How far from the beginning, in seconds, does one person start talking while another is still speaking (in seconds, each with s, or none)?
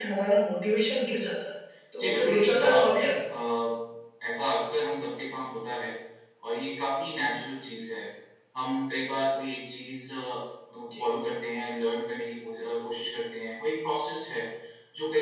2.0 s